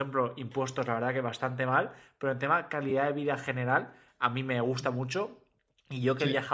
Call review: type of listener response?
listening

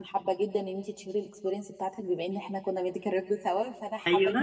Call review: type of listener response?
listening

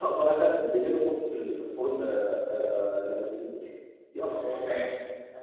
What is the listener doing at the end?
taking over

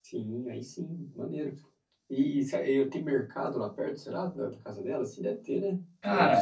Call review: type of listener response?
taking over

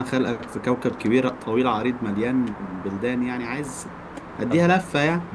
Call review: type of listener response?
taking over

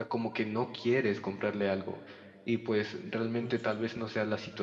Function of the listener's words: listening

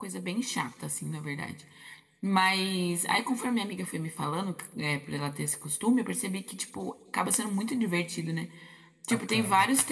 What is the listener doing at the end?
listening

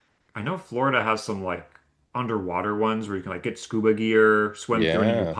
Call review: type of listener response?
listening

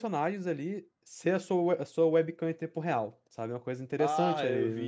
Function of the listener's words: taking over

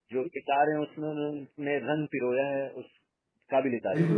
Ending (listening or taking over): taking over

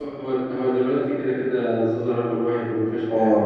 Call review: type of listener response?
taking over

